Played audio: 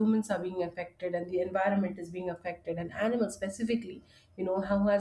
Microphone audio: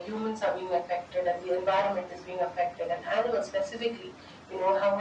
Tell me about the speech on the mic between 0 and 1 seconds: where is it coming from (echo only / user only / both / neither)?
echo only